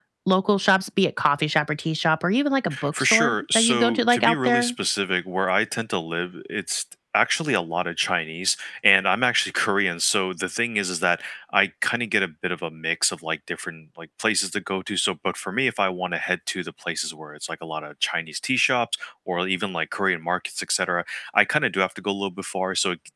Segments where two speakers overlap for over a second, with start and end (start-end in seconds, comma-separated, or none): 3.0-4.7